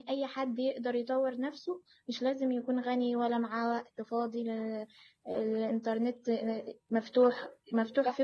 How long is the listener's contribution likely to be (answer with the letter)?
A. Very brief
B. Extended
A